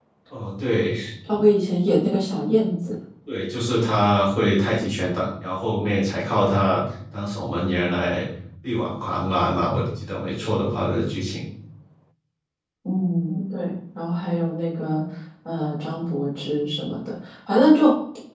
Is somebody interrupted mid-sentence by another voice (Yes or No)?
No